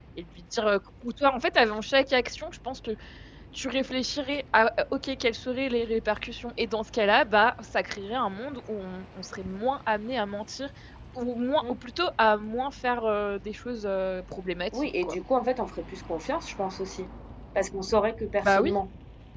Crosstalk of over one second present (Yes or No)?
No